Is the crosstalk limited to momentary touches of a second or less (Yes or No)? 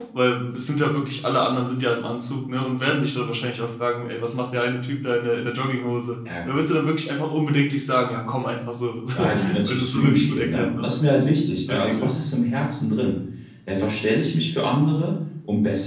No